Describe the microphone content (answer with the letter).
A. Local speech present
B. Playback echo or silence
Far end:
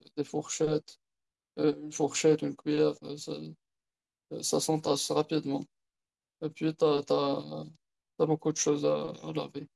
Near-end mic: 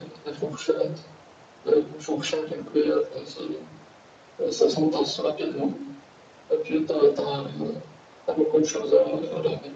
B